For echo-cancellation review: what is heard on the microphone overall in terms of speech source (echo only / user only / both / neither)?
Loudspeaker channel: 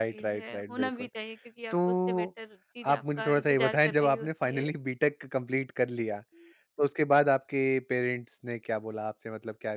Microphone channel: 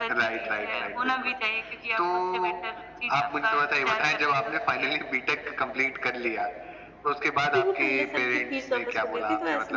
both